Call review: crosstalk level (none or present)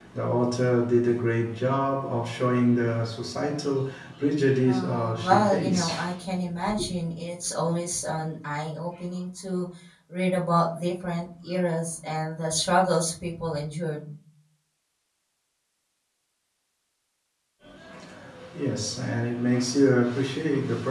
present